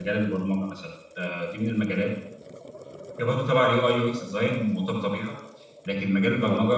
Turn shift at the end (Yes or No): No